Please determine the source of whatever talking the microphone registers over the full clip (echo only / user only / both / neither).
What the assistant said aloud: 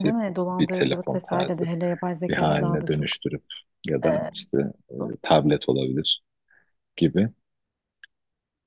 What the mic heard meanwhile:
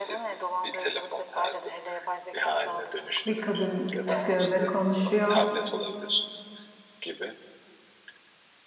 both